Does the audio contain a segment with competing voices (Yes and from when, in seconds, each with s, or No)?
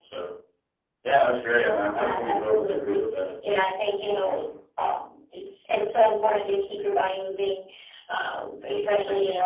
Yes, from 2.0 s